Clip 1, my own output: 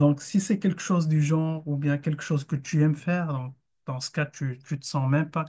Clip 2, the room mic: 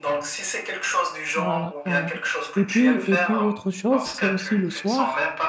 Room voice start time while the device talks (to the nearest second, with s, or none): 1 s